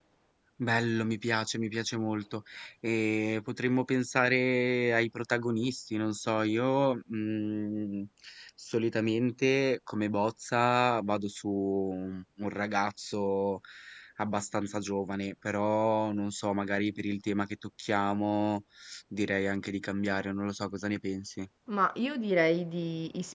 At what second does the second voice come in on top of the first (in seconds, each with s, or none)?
none